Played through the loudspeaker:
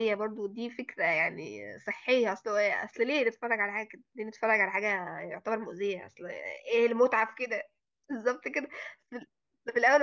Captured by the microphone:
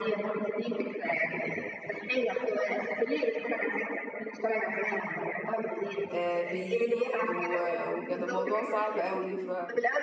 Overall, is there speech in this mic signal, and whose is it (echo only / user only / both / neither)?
both